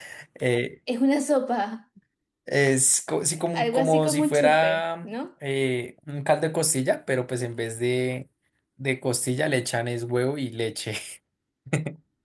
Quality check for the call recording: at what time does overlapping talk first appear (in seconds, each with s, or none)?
3.5 s